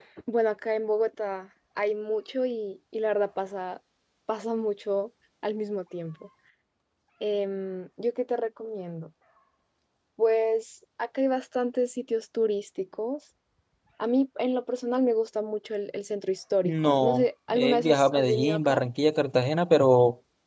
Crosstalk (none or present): present